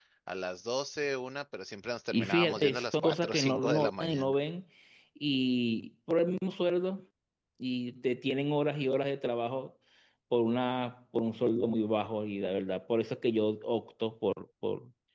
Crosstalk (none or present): present